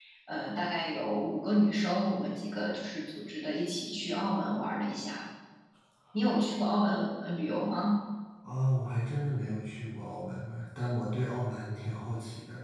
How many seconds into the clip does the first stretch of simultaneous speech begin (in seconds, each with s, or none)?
none